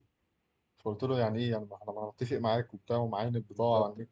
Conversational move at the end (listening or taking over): taking over